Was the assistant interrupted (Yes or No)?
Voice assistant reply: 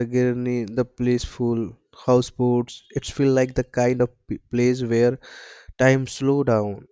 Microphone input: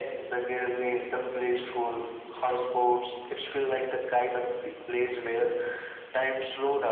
No